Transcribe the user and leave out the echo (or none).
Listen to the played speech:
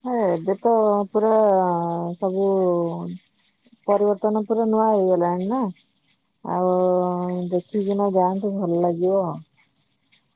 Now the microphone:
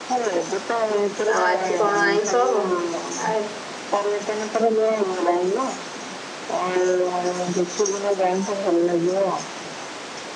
ଆଉ ଆଜି କଣ ଆଇଁଷ ହବ? ଆ